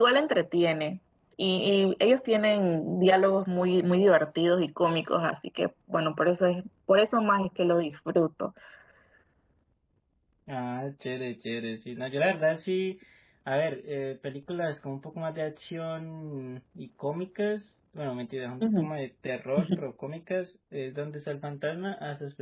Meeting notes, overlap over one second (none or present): none